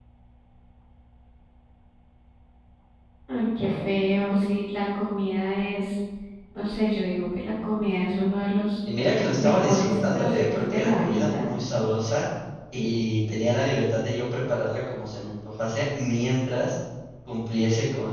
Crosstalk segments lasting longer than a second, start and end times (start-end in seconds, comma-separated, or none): 9.3-11.5